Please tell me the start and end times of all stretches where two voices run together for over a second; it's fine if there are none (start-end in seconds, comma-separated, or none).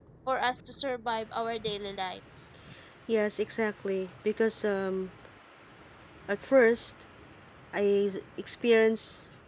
none